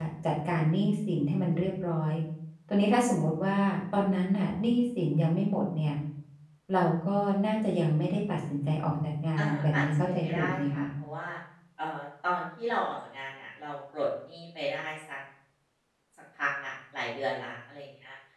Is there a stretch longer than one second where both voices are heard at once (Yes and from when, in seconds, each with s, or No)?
Yes, from 9.4 s